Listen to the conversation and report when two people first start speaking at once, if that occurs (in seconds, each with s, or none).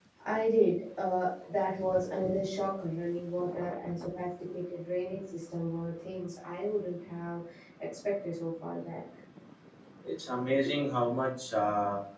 none